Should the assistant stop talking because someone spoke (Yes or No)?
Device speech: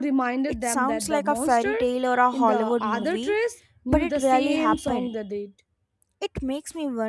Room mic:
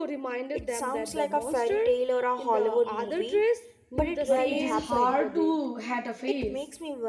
Yes